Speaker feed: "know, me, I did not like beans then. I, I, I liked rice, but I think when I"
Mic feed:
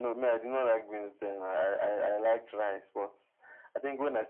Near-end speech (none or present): none